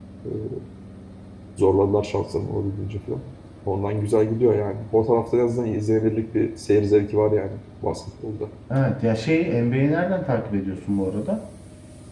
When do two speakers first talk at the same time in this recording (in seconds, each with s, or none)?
none